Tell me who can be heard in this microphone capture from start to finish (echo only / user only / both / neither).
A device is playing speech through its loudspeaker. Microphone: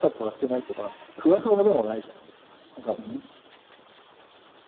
echo only